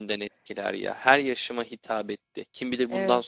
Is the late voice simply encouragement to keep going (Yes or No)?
Yes